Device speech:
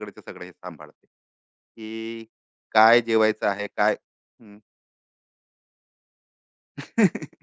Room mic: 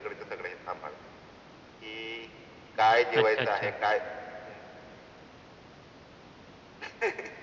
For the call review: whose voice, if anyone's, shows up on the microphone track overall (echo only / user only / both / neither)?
both